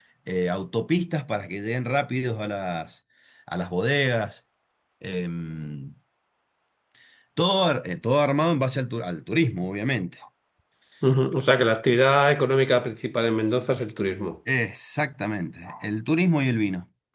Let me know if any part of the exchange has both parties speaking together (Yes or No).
No